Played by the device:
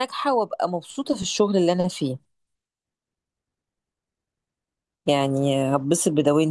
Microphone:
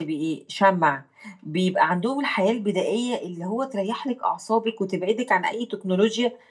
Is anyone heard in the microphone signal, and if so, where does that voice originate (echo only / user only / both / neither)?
user only